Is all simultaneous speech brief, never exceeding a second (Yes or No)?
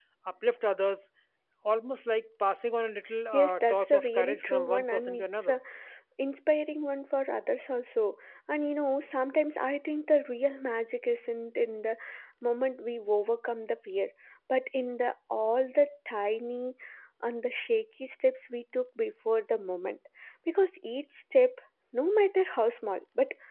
No